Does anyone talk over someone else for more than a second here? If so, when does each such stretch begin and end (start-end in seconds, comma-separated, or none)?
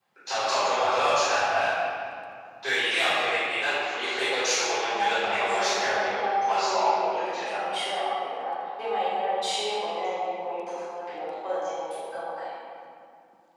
4.8-7.7